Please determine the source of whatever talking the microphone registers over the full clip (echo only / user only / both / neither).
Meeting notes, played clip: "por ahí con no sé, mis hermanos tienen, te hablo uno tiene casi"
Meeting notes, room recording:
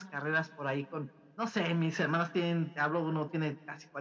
echo only